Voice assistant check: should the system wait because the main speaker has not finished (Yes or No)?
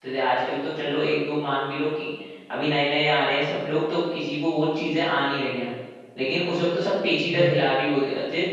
Yes